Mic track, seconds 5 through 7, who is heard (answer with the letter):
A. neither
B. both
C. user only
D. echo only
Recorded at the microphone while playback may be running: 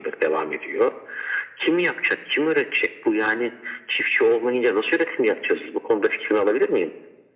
D